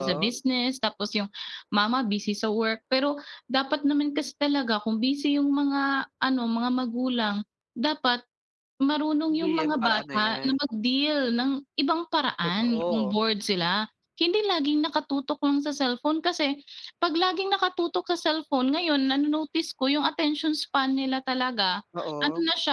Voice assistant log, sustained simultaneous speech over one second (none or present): present